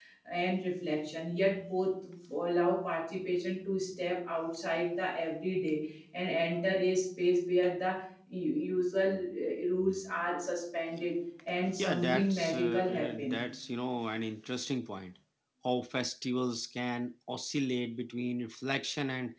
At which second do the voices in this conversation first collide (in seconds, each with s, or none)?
11.7 s